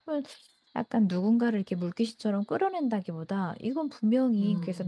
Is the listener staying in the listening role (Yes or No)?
Yes